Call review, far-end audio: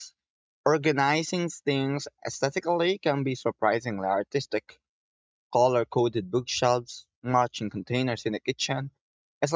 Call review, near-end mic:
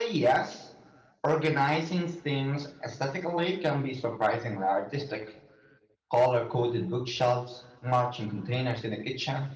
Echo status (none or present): present